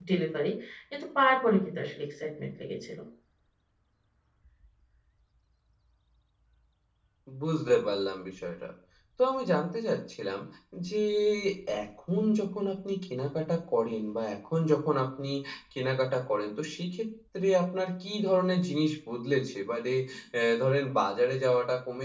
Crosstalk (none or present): none